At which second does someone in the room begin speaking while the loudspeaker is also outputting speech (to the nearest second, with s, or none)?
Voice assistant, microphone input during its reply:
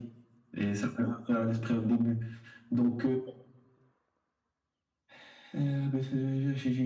none